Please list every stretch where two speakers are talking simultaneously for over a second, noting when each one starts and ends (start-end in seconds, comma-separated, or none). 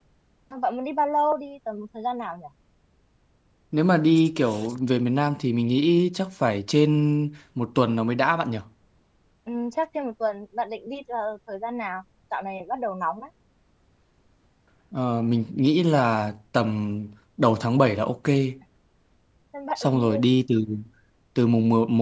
none